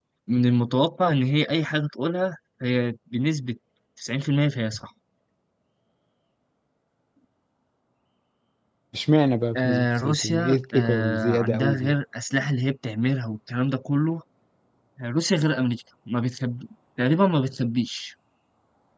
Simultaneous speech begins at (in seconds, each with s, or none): 9.6 s